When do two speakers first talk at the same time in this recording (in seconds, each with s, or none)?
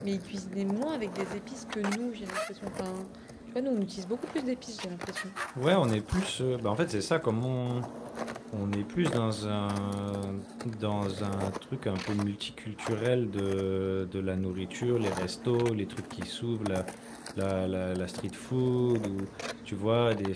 none